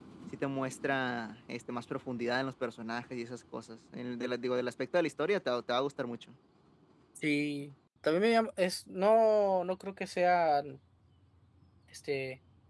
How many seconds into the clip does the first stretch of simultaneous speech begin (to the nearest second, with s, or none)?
none